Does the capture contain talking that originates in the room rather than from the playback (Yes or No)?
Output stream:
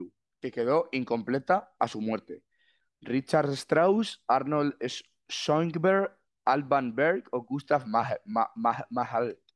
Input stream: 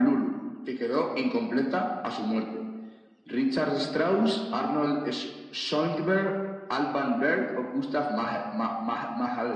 No